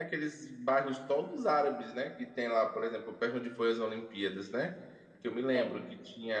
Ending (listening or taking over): listening